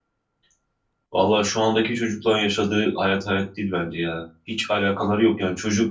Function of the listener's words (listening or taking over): listening